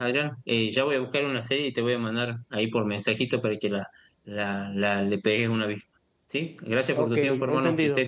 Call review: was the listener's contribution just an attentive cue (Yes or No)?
No